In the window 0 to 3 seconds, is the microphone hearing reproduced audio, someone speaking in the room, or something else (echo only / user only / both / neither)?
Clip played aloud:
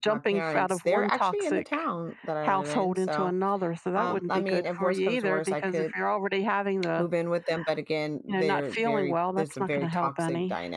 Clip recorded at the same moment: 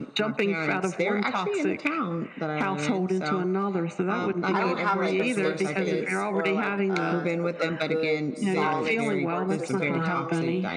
echo only